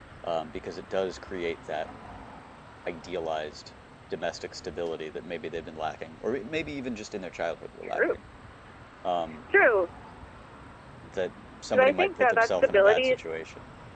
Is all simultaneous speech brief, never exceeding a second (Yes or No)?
No